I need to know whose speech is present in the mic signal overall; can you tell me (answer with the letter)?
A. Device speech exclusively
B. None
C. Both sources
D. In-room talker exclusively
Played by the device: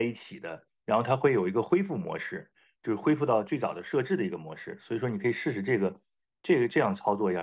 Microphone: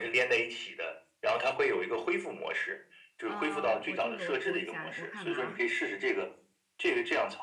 C